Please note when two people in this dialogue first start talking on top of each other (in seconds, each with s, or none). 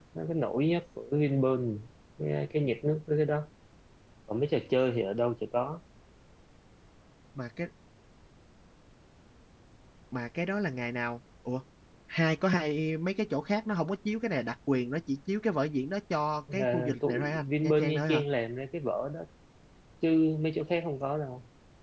16.5 s